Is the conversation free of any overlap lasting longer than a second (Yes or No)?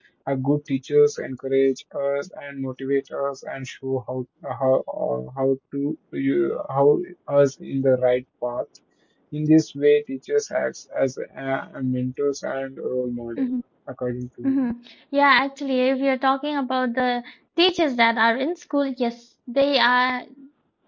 Yes